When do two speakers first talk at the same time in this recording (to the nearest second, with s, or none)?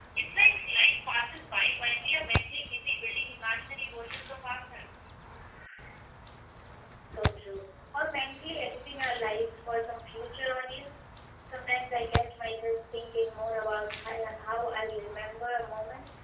none